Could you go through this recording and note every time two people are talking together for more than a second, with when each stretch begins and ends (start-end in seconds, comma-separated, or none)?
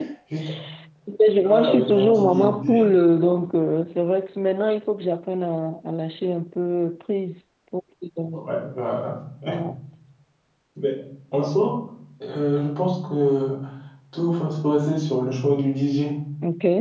1.4-2.9